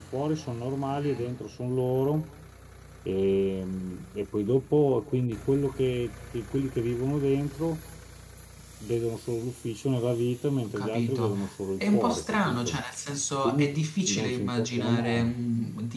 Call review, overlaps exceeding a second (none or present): present